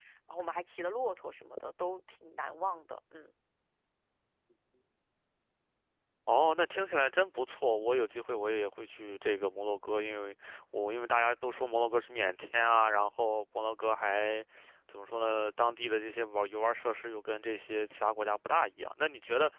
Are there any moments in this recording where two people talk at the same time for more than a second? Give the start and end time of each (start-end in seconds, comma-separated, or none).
none